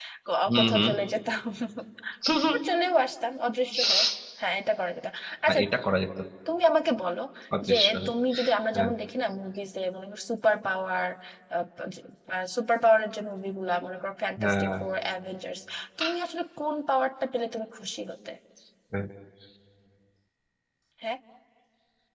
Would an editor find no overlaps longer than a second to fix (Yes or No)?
Yes